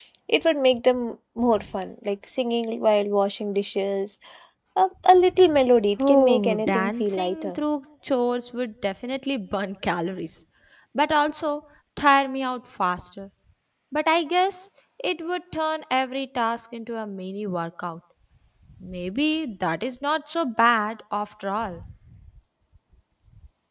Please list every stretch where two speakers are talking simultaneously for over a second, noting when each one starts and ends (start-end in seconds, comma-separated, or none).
6.1-7.6